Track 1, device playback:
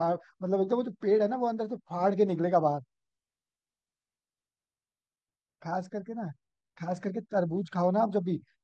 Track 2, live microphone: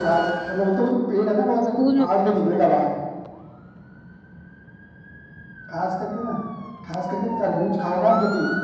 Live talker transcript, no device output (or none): स्कूल में पता होगा